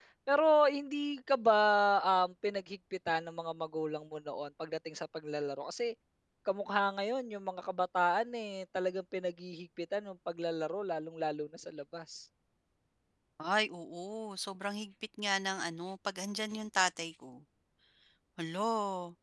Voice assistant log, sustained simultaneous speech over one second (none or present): none